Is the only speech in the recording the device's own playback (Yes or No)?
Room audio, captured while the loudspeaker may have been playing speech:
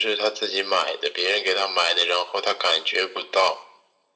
Yes